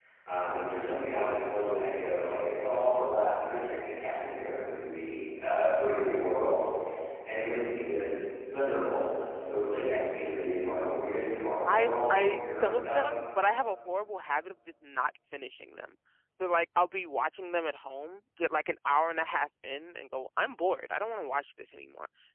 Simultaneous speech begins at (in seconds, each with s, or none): 11.7 s